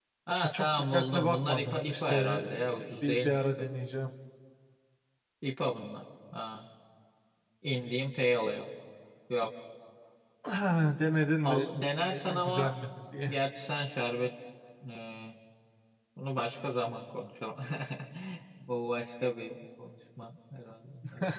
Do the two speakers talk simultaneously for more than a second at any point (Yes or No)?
Yes